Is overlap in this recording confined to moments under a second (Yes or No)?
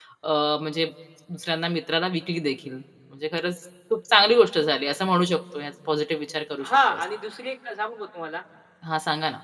Yes